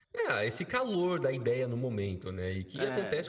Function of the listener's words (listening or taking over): listening